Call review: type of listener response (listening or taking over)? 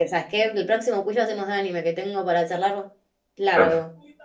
taking over